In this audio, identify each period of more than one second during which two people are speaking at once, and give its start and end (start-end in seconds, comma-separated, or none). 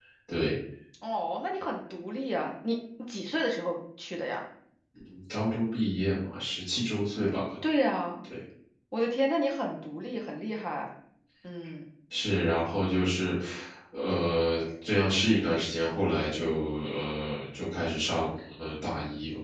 none